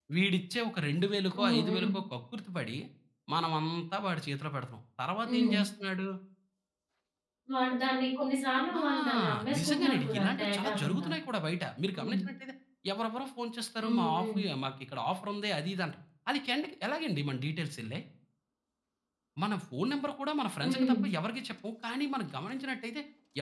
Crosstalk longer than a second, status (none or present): present